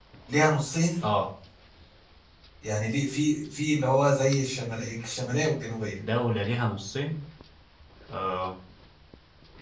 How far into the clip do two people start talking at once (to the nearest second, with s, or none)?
none